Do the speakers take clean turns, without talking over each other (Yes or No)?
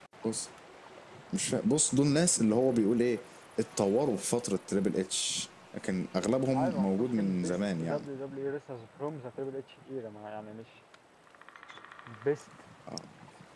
No